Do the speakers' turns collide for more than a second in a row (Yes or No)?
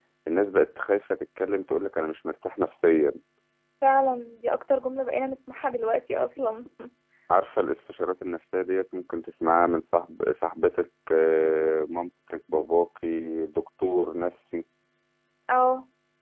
No